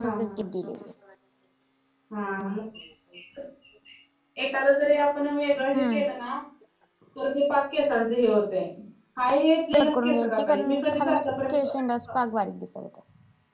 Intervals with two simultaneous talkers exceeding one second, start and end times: 9.7-11.6

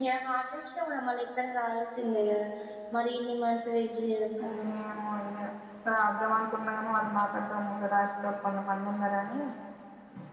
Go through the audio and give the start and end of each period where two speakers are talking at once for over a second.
none

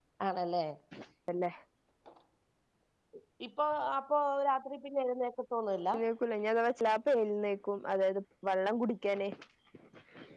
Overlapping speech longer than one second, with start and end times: none

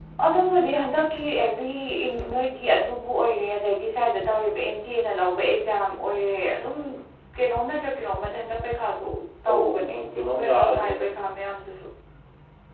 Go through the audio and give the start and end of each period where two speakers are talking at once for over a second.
9.5-11.0

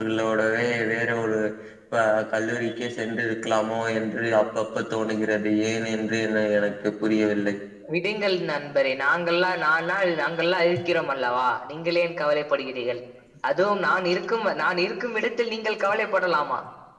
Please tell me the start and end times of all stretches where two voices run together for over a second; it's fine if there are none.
none

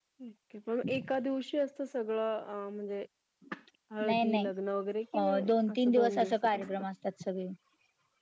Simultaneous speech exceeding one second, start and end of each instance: 5.1-6.8

